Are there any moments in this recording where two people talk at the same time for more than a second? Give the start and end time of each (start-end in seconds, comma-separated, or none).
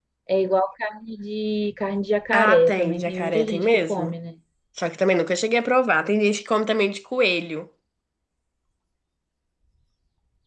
2.3-4.2